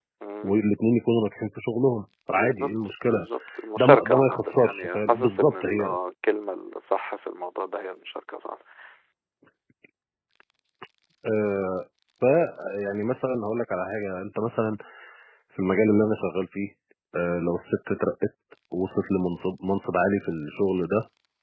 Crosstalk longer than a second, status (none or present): present